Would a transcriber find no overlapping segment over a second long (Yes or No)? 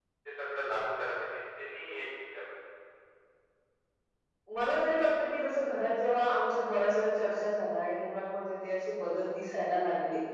Yes